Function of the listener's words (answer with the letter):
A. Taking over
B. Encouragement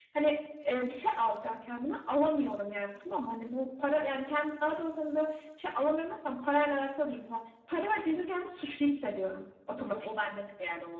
A